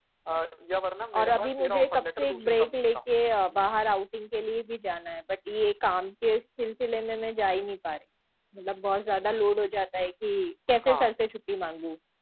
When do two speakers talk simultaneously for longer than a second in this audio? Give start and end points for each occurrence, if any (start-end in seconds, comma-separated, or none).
1.2-3.0